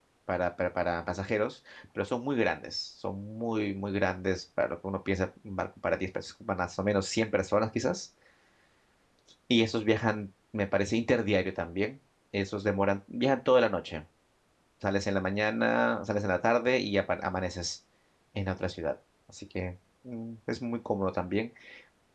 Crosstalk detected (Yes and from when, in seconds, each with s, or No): No